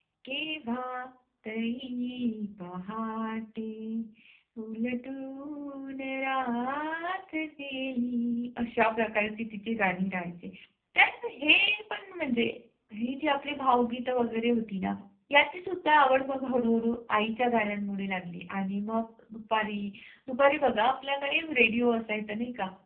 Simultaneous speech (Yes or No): No